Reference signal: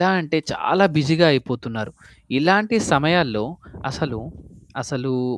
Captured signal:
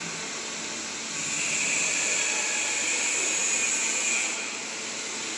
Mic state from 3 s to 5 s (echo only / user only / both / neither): neither